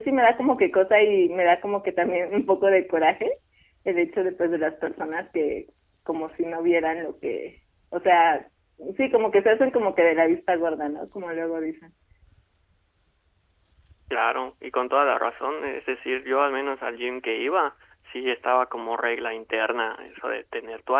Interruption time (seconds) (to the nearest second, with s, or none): none